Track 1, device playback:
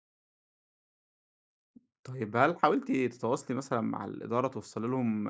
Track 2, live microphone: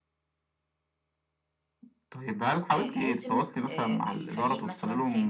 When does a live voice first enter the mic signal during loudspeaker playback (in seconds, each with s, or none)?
2.8 s